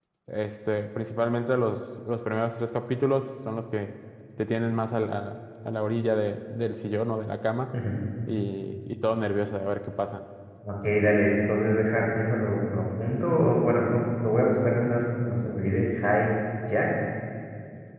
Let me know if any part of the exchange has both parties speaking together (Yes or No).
No